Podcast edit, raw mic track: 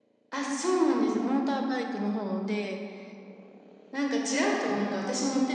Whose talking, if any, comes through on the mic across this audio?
echo only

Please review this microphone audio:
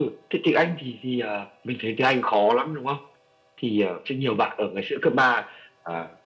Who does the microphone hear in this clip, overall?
echo only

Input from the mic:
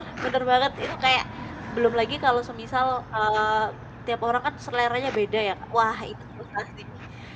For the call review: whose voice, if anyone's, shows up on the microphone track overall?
user only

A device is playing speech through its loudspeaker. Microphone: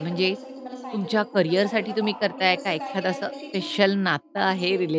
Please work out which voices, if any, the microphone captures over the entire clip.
both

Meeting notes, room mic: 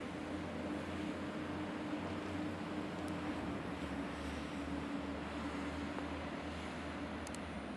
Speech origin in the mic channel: neither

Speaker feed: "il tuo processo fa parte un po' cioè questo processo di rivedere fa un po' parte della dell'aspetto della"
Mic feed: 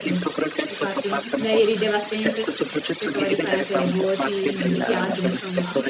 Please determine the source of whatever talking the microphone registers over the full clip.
both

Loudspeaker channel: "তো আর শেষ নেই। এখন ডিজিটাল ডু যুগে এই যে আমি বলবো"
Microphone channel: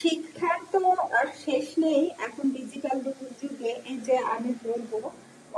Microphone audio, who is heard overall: echo only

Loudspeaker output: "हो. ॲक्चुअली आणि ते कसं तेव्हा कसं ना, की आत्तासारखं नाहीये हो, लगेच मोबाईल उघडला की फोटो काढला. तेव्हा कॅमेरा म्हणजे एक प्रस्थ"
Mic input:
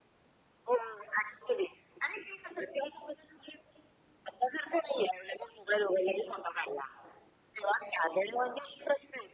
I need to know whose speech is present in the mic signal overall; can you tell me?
echo only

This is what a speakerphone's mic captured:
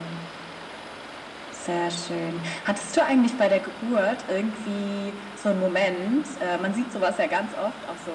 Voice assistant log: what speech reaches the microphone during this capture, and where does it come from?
echo only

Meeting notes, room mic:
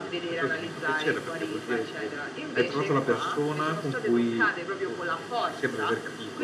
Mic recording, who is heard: echo only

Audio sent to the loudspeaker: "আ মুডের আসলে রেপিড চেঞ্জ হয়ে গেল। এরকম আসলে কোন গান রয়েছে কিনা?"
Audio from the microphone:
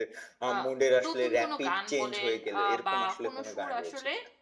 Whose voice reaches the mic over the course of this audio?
both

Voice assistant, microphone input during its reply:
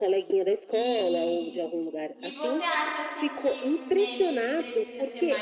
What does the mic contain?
both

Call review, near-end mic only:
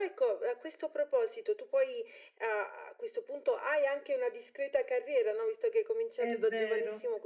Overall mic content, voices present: both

